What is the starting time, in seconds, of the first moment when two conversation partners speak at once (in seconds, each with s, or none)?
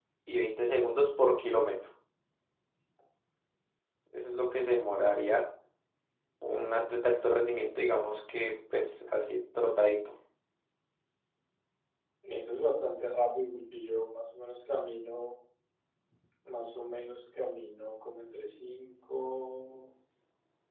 none